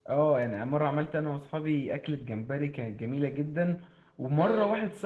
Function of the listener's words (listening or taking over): listening